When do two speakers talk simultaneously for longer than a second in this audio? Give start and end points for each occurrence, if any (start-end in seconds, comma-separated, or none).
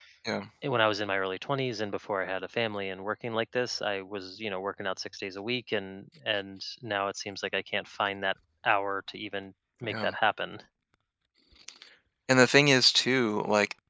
none